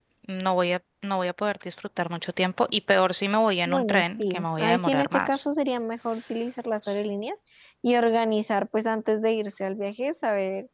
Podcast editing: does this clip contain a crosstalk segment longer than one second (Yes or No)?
Yes